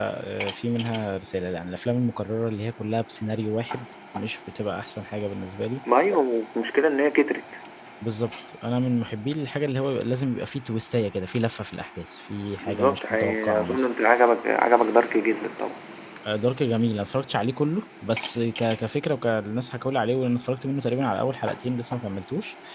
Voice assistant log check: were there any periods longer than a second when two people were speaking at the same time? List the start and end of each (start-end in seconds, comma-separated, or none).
12.6-13.9